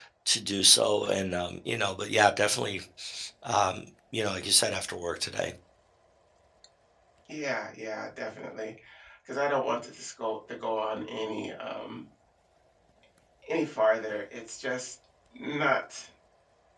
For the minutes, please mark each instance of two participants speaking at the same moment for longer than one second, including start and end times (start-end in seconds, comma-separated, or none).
none